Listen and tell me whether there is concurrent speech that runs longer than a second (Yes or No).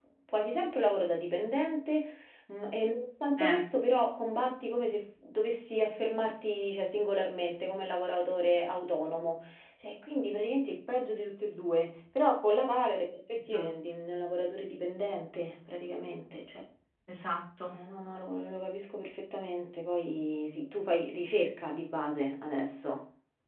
No